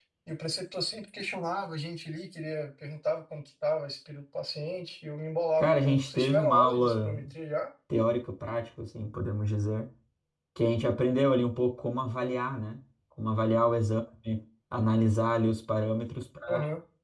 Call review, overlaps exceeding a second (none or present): present